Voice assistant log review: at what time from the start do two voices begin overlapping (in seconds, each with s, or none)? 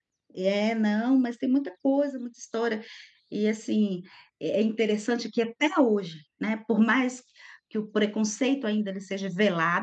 none